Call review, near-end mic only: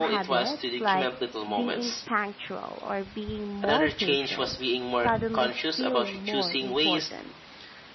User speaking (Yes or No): Yes